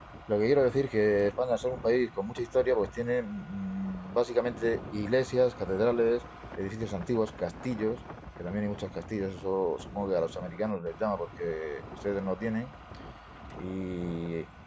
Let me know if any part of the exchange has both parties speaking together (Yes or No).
No